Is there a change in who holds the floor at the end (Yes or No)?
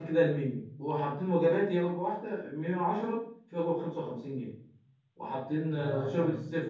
No